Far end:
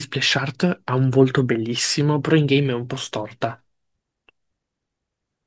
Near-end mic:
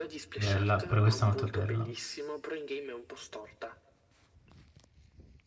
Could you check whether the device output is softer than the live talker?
Yes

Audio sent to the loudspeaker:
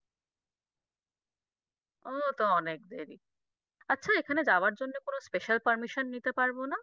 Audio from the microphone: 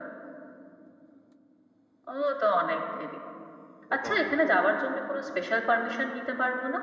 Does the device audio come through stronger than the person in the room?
Yes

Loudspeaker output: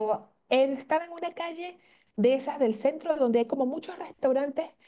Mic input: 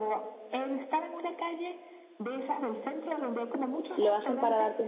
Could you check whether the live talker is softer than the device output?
No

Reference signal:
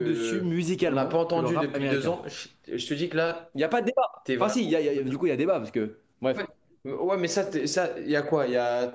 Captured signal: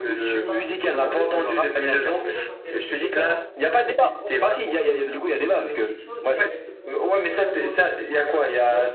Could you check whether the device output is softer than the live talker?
No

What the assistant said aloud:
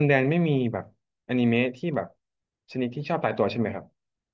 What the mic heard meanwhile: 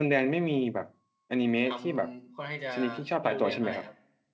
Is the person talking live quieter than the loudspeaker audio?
Yes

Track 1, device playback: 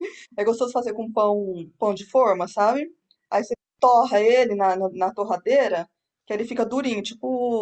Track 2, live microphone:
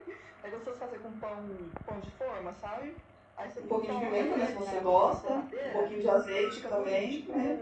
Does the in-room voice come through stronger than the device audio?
Yes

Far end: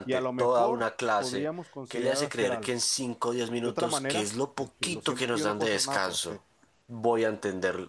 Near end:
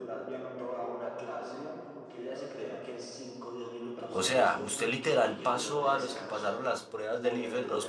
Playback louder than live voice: No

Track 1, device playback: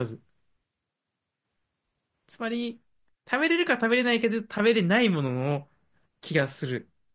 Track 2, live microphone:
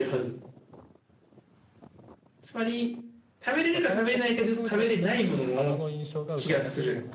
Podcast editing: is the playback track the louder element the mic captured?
Yes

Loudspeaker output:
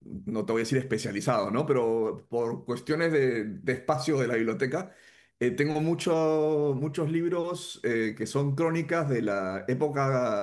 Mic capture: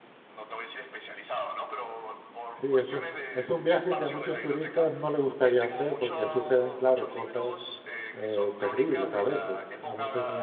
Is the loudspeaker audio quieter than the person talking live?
Yes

